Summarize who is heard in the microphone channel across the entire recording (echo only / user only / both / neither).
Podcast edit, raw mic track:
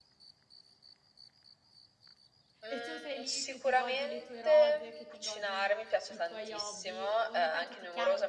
both